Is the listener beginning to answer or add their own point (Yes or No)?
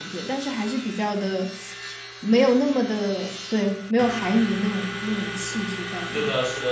Yes